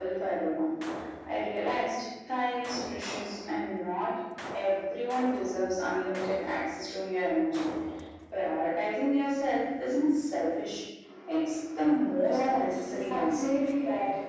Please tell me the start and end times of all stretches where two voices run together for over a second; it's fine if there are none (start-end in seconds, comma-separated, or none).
12.2-13.4